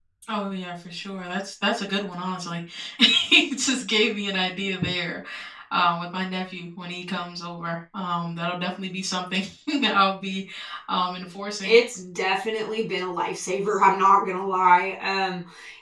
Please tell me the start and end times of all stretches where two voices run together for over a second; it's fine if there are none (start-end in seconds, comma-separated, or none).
none